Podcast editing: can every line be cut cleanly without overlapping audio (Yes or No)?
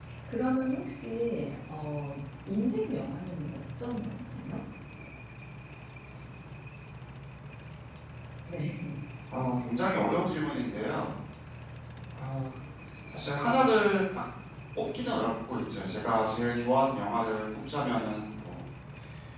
Yes